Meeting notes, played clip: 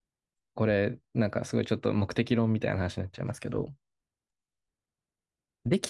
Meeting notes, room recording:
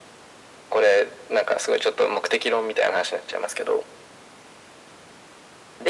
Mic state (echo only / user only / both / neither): echo only